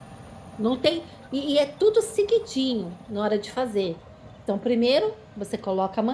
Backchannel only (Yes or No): Yes